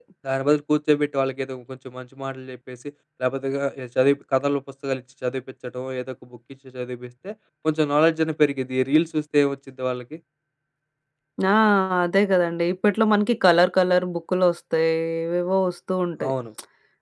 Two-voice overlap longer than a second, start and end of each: none

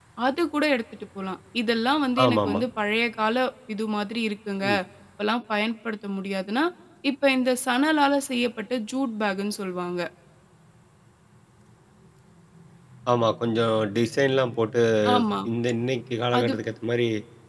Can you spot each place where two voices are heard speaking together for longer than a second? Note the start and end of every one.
none

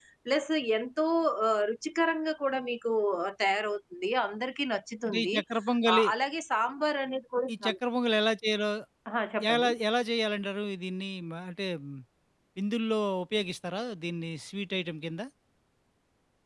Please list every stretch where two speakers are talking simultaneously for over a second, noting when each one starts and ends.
none

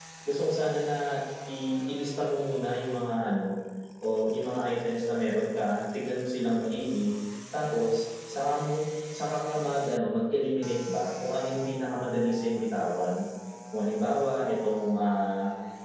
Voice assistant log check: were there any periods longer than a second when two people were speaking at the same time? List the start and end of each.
none

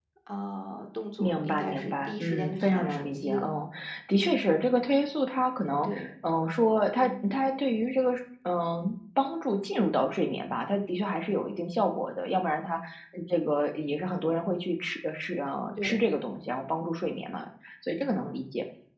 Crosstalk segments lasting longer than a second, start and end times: 1.2-3.5

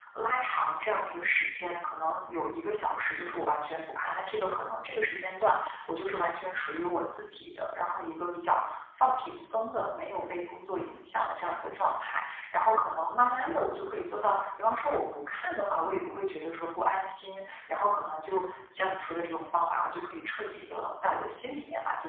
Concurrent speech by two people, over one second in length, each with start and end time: none

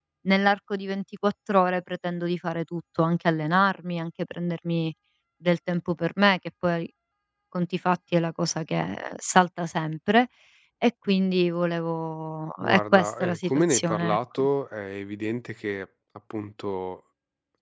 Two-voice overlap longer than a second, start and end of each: 12.6-14.4

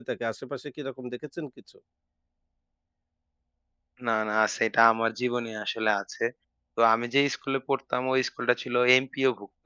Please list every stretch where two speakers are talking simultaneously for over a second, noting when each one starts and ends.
none

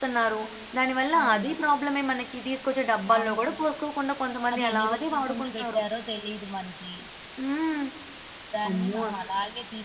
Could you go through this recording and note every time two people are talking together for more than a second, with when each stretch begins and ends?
4.5-5.8

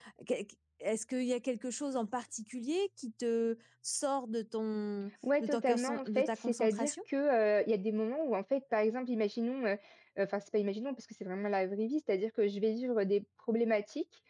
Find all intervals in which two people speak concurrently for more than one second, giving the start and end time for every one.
5.4-6.9

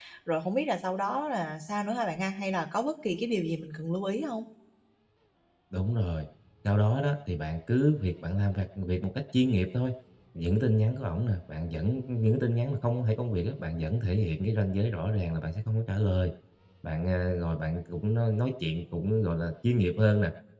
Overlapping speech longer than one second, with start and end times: none

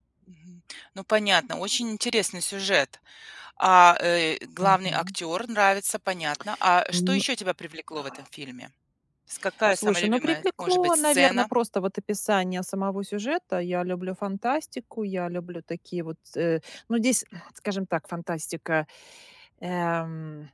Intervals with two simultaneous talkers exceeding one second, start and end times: 9.7-11.5

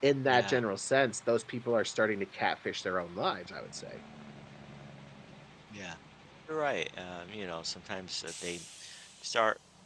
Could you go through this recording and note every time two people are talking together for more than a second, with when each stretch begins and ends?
none

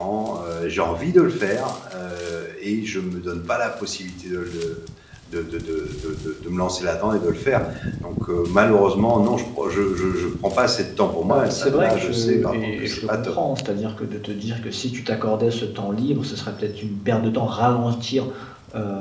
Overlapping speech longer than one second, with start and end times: 11.2-13.3

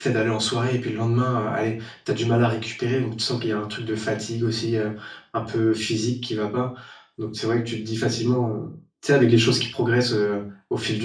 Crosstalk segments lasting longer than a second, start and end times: none

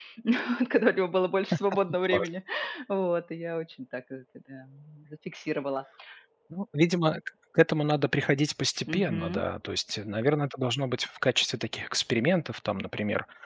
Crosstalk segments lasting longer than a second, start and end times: none

